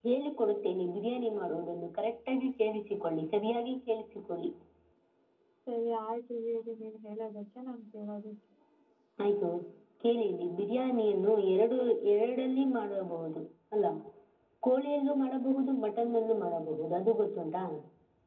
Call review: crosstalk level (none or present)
none